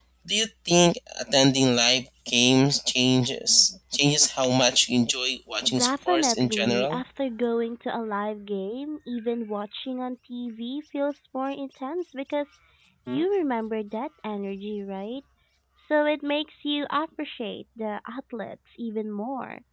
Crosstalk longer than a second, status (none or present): present